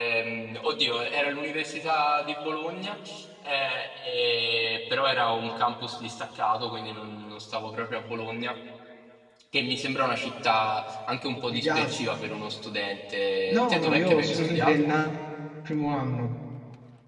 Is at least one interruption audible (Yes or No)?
Yes